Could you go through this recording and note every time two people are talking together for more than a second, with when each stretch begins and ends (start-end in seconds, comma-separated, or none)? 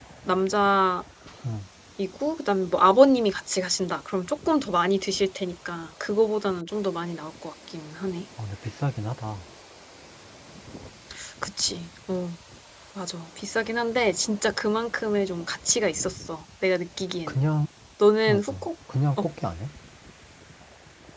none